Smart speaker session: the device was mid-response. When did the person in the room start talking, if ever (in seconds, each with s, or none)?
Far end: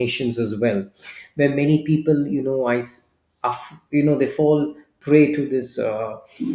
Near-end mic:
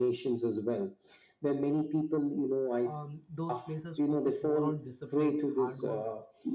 2.8 s